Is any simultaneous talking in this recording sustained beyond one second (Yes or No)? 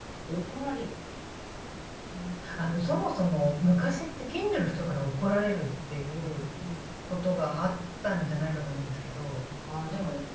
No